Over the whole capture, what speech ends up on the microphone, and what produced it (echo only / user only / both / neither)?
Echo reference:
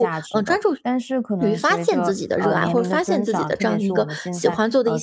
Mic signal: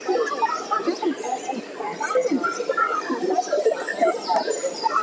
echo only